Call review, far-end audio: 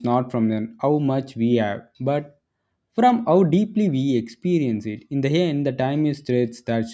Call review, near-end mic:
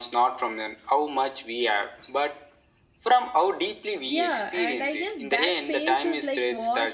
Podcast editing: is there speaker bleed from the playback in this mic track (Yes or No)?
Yes